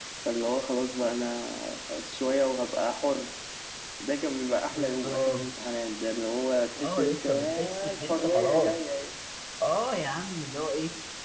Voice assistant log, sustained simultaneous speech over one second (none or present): present